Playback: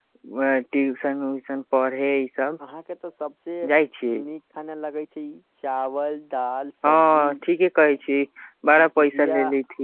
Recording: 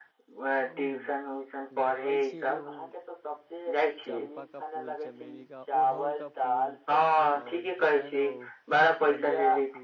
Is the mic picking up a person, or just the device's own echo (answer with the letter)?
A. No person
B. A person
B